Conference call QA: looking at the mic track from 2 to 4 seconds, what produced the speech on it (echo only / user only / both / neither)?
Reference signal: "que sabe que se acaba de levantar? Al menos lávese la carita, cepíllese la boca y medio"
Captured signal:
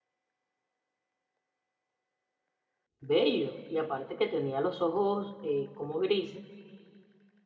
user only